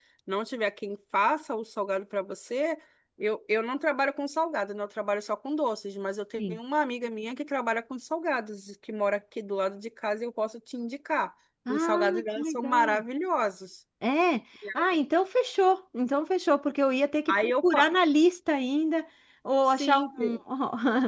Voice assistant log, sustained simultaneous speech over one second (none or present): present